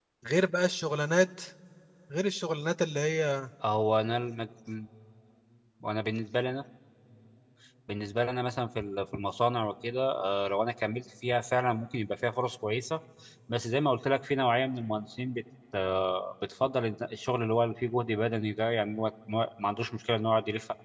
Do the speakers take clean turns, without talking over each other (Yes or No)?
Yes